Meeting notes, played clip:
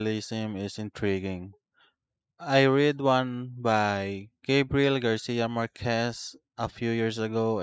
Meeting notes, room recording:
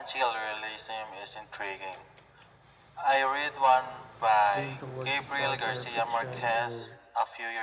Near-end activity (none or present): present